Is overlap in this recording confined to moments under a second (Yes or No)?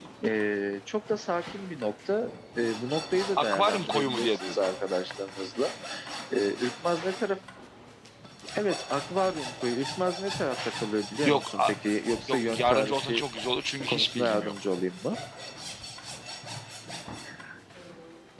No